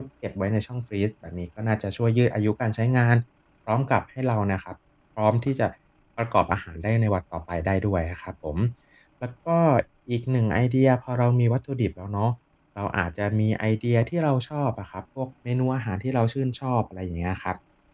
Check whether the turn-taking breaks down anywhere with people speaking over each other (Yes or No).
No